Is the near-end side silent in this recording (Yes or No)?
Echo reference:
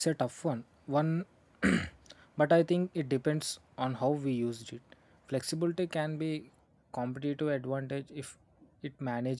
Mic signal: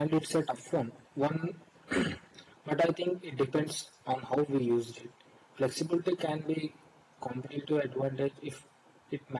Yes